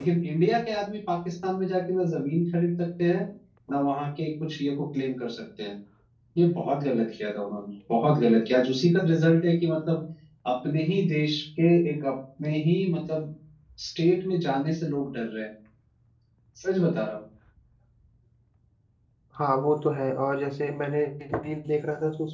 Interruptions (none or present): none